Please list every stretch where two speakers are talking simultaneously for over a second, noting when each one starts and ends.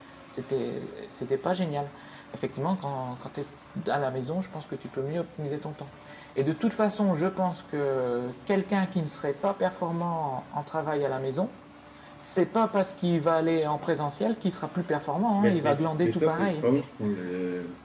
15.4-16.6

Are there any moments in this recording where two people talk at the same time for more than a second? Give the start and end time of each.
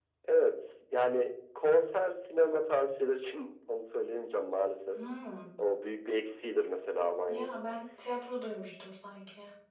none

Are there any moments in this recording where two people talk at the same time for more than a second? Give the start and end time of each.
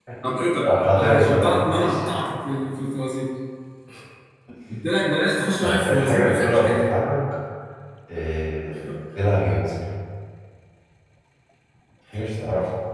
0.7-2.0, 5.6-6.9

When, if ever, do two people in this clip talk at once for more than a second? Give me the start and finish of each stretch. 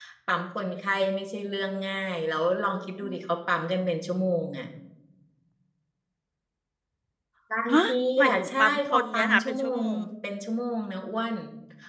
8.2-10.0

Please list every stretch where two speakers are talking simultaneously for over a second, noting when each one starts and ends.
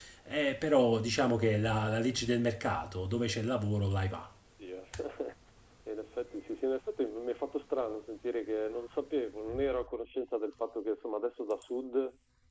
none

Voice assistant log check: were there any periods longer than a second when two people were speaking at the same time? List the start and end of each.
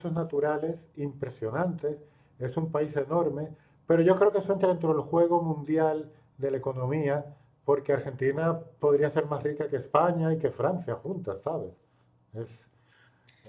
none

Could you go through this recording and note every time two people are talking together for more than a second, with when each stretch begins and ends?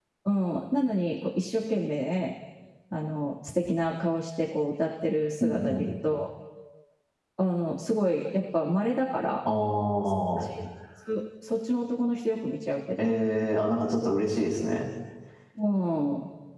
none

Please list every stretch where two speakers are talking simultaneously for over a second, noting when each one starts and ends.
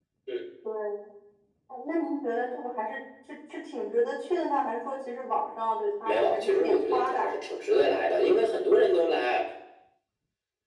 6.0-7.3

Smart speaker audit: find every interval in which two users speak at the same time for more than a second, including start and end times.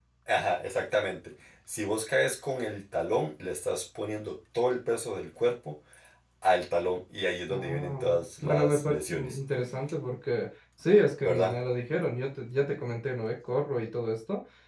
7.5-9.4

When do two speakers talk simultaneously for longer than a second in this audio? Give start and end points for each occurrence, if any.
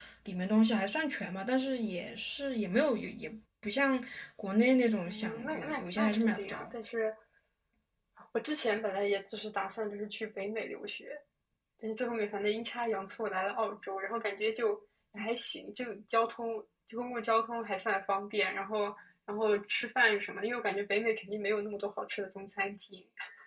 5.0-6.7

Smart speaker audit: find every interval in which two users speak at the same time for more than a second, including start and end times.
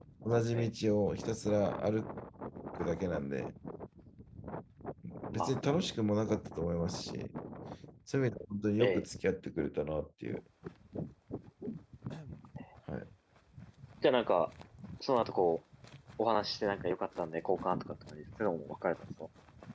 none

